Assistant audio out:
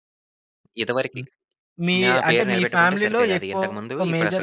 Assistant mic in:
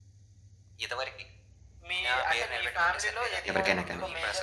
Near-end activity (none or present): present